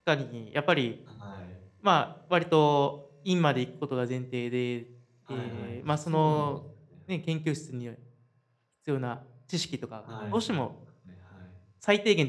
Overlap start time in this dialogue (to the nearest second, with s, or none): 5 s